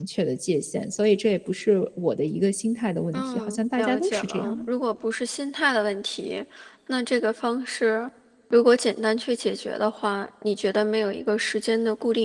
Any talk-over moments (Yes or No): Yes